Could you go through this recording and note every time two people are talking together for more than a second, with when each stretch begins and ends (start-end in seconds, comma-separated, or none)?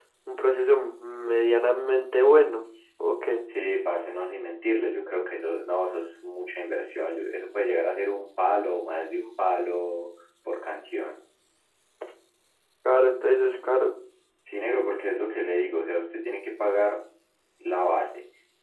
none